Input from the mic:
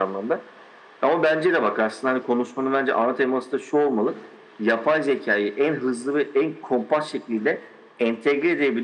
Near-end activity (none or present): none